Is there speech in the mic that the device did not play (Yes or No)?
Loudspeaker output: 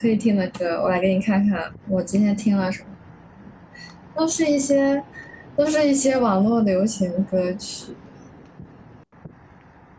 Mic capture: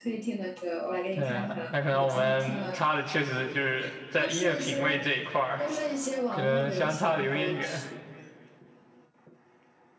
Yes